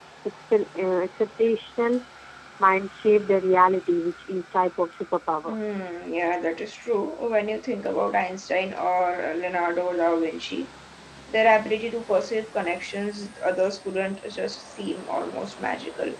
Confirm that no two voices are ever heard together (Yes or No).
Yes